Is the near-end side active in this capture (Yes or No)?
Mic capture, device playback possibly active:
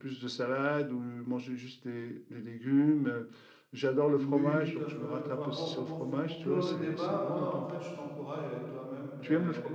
Yes